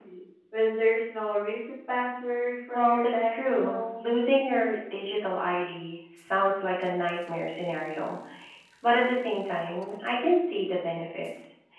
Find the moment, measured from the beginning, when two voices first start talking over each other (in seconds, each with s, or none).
2.7 s